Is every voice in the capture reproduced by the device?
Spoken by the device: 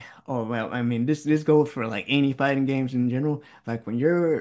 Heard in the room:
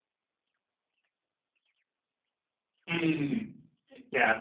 No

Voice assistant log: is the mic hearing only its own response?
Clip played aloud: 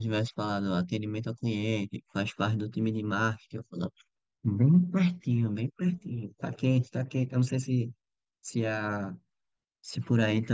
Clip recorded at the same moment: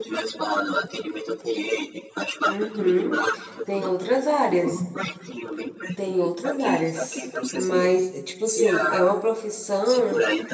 No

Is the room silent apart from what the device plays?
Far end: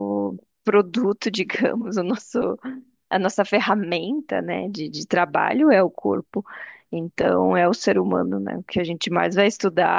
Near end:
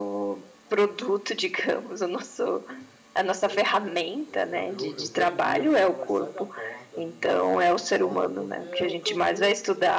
No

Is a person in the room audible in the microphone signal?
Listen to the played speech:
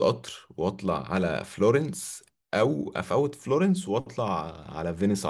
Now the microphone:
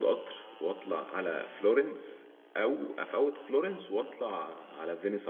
No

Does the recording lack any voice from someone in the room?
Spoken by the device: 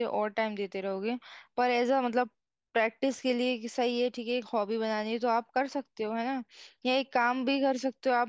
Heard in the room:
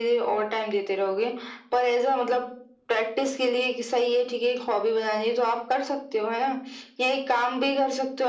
Yes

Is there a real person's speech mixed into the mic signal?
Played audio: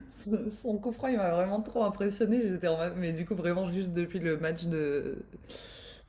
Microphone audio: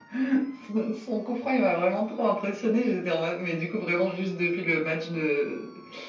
No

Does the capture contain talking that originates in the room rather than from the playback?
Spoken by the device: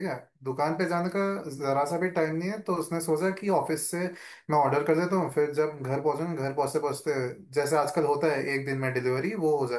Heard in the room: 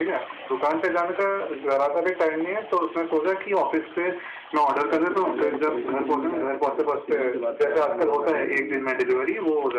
Yes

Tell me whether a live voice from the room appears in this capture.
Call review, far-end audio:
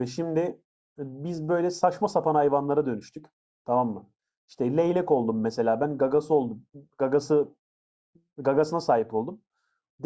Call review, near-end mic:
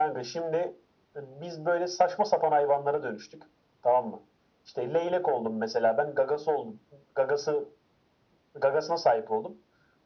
No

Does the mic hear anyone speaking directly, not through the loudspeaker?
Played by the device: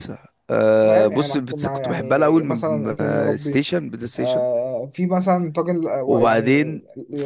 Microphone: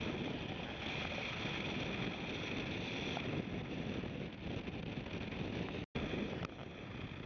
No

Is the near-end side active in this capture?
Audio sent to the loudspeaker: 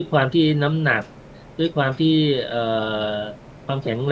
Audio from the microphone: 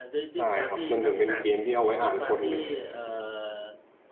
Yes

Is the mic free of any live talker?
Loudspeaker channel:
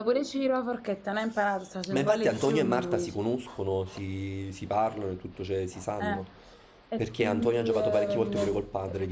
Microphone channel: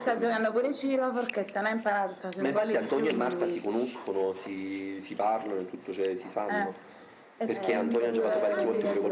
No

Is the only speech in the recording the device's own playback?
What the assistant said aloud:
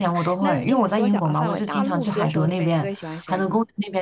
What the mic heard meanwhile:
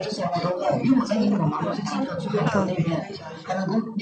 No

